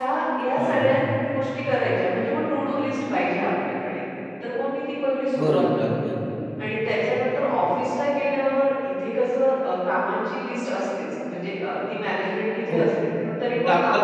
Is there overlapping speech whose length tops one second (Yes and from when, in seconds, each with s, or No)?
No